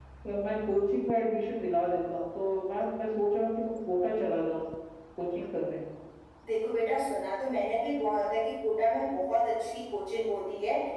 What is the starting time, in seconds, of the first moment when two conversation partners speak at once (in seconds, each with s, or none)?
none